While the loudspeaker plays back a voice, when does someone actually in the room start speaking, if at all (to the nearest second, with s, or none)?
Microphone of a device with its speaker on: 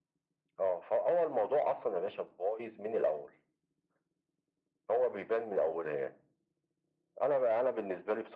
none